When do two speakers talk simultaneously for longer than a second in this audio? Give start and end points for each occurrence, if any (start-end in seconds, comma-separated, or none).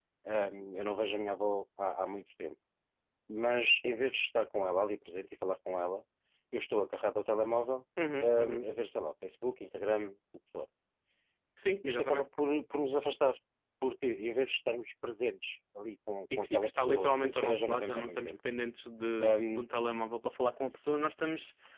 16.4-18.3